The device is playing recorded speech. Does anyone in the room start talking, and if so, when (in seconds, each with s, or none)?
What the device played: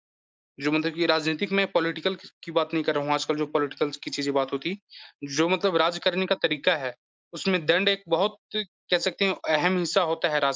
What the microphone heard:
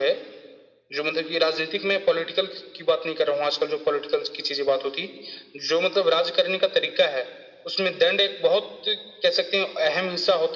none